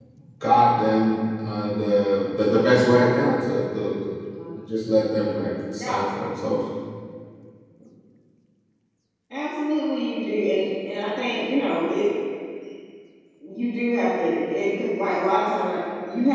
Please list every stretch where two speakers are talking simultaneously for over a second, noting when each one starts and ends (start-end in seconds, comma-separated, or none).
none